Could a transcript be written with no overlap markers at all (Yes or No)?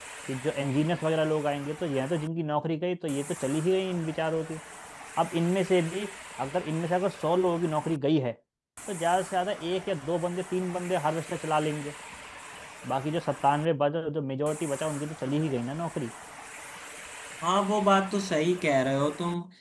Yes